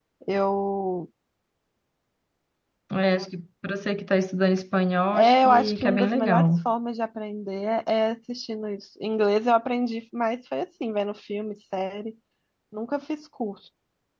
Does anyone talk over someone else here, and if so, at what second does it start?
5 s

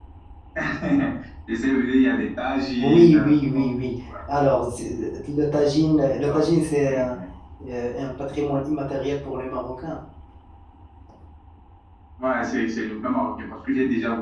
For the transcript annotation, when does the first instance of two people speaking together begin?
3 s

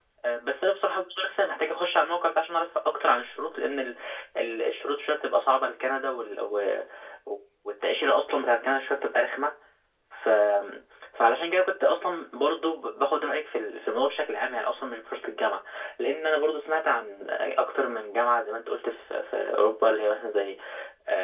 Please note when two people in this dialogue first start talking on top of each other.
none

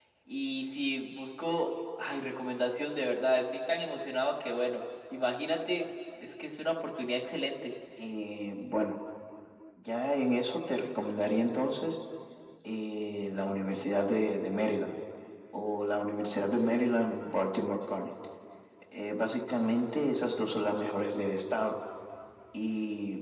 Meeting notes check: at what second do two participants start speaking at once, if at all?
none

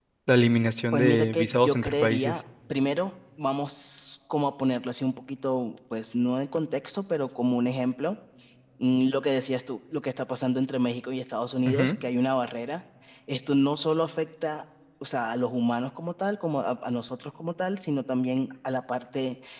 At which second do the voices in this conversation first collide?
1 s

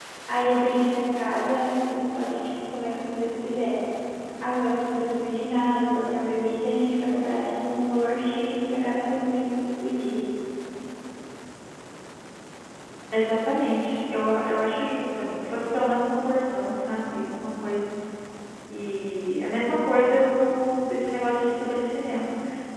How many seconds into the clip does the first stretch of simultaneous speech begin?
none

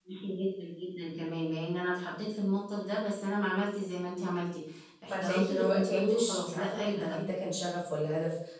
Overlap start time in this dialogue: 5 s

